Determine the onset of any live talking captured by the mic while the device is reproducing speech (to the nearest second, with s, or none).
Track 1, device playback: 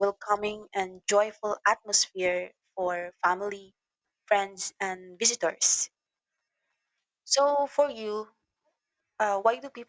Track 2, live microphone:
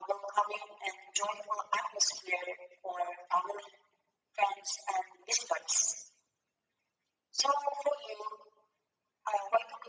none